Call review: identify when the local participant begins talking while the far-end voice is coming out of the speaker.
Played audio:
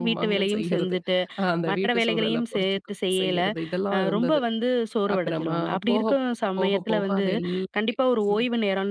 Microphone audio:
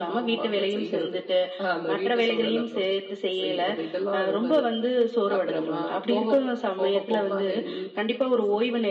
none

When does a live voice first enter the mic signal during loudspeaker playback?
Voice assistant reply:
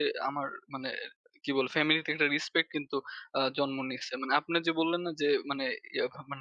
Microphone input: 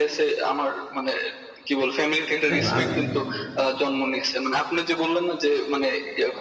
2.5 s

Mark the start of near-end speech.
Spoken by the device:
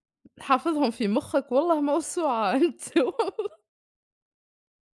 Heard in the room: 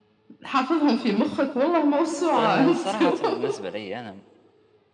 2.3 s

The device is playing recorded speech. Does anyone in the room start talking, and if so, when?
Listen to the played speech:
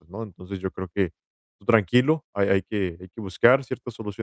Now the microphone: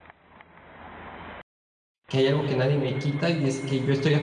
2.1 s

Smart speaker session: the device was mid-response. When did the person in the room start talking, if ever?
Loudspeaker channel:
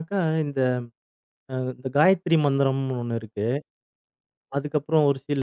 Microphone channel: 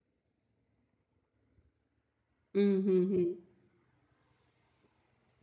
2.6 s

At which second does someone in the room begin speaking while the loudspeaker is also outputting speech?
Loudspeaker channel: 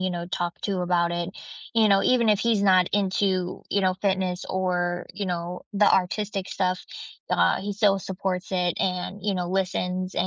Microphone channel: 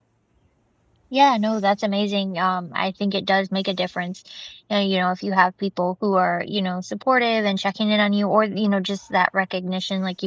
1.1 s

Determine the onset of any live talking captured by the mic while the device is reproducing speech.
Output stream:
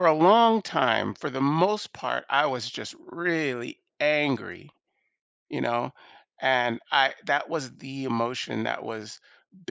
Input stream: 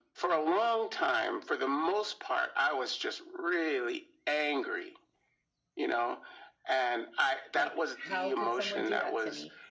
7.5 s

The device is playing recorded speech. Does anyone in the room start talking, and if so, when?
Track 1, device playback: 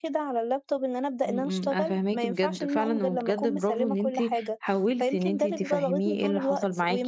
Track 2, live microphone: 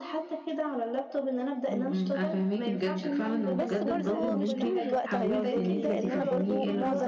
3.5 s

